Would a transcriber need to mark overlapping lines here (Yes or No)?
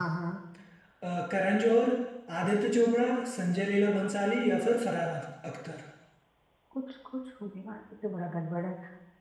No